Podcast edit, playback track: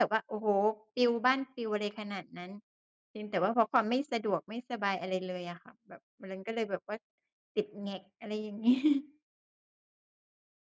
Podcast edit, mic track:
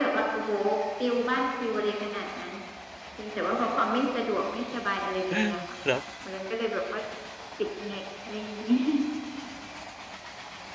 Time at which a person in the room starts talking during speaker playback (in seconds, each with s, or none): 5.3 s